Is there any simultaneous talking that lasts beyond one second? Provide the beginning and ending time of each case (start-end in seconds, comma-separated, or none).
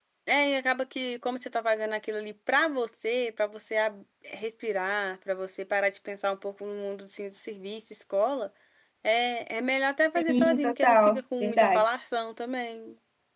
10.2-12.0